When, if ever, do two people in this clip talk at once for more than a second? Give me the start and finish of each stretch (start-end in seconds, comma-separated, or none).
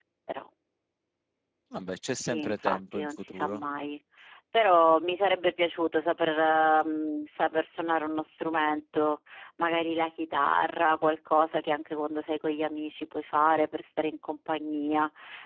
2.2-3.6